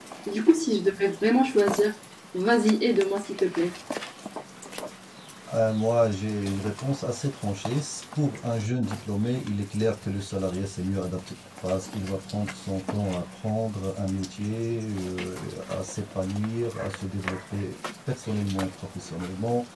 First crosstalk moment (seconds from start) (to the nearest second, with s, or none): none